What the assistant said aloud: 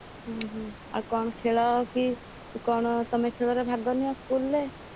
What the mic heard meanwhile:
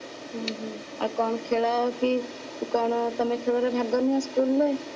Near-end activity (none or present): none